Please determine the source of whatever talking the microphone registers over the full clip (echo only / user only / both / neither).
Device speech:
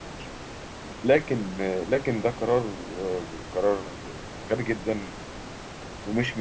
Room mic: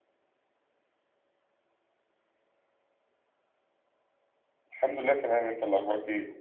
user only